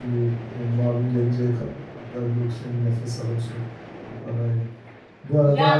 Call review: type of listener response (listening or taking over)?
listening